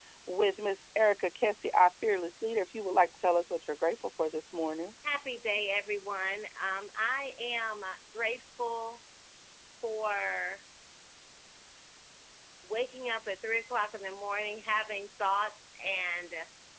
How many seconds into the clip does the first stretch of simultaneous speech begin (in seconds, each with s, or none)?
none